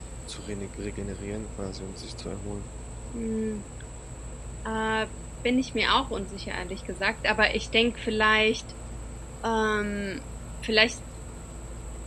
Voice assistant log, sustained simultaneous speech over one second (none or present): none